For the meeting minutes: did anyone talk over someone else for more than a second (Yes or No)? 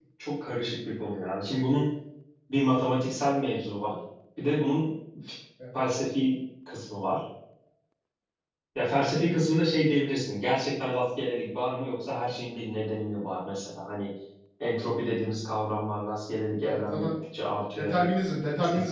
No